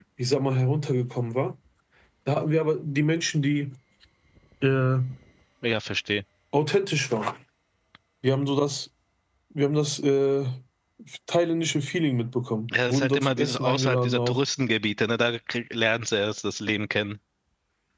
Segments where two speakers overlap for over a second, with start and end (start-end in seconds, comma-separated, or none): 12.9-14.4